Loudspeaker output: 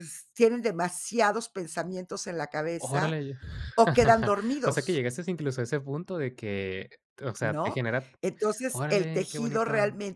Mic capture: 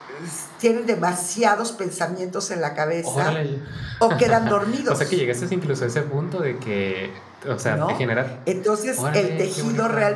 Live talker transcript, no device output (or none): none